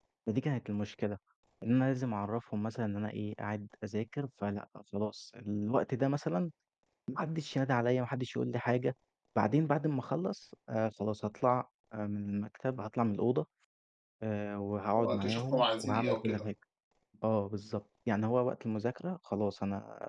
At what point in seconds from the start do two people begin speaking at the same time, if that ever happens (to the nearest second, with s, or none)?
15 s